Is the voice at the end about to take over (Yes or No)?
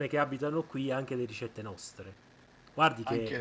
No